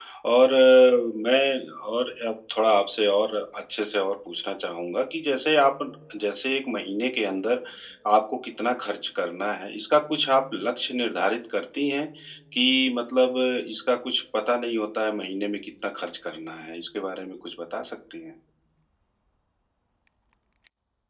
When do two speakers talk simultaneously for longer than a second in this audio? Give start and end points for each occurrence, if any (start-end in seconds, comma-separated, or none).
none